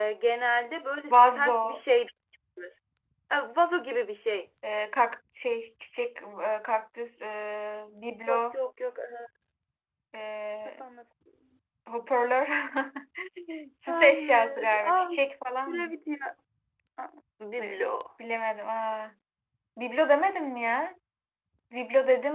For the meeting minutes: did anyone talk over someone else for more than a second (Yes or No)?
Yes